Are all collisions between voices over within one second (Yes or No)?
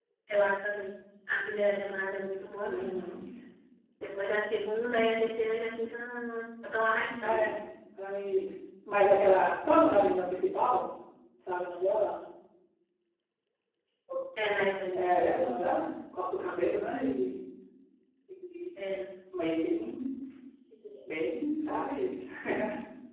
Yes